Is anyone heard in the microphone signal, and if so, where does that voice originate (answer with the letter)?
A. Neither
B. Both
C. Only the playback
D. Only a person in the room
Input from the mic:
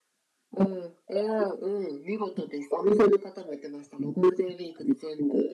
C